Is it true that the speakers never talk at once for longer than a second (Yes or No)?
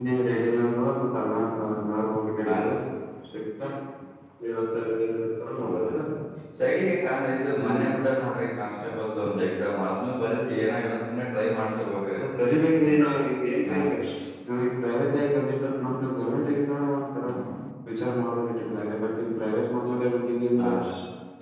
Yes